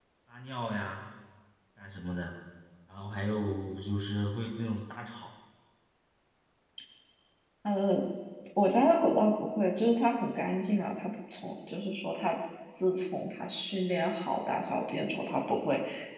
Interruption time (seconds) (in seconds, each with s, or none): none